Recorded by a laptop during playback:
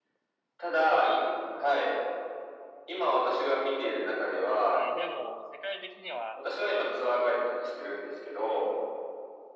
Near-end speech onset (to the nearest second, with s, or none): 5 s